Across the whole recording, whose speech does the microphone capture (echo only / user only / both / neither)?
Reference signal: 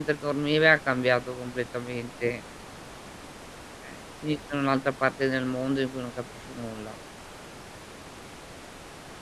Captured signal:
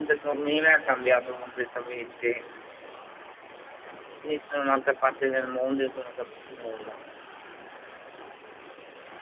echo only